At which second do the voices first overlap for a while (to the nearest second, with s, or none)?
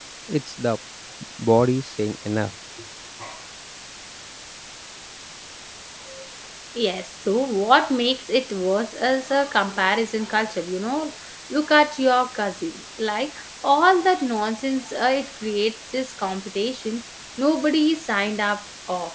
none